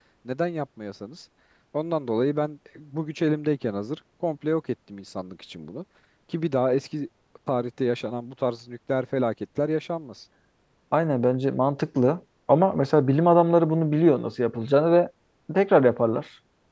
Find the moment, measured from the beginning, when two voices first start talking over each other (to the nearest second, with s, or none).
none